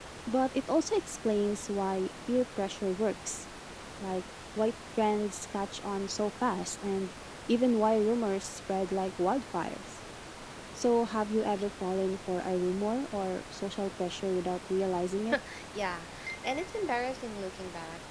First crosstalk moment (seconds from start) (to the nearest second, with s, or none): none